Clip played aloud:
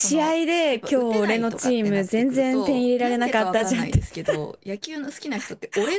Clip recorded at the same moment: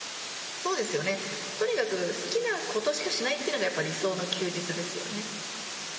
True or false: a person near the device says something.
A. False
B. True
B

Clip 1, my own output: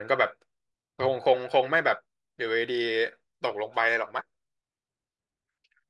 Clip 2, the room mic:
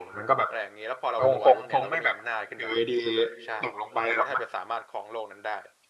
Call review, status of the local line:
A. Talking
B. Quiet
A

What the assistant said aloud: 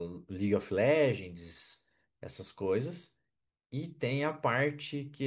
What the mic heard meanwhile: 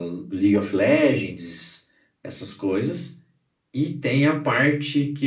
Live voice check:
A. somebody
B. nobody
B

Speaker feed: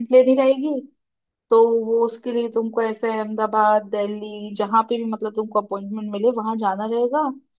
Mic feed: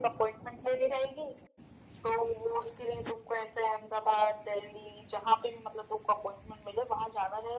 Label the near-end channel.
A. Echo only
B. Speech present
A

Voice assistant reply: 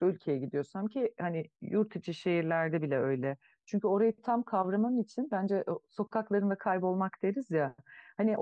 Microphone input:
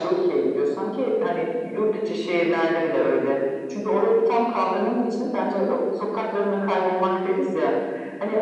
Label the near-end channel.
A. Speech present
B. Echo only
B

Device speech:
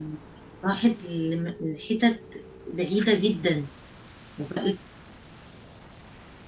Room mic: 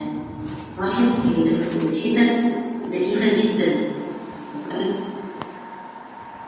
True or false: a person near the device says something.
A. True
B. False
B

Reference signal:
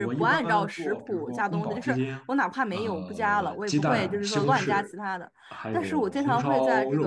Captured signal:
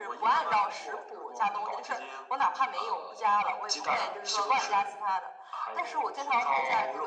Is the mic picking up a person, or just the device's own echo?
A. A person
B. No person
B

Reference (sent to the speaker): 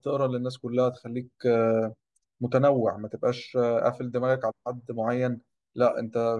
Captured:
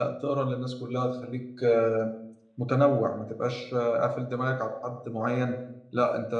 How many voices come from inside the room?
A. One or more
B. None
B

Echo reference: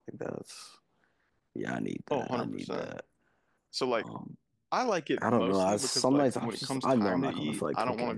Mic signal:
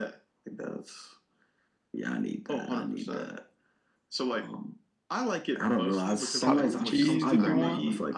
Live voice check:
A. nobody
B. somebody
B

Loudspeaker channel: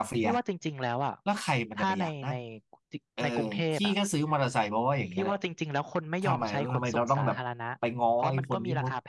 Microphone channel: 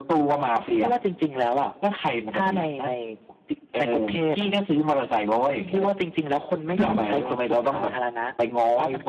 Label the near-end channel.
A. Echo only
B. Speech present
B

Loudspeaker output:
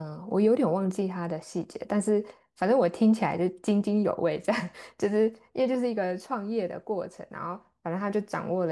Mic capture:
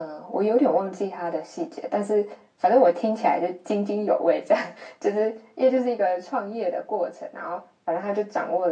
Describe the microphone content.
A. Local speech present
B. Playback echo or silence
B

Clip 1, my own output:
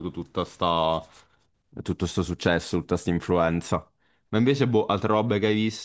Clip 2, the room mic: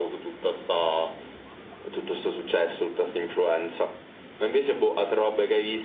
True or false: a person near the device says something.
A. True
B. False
B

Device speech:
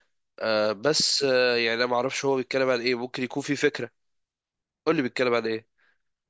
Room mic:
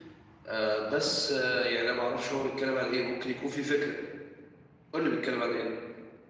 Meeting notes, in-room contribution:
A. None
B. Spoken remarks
A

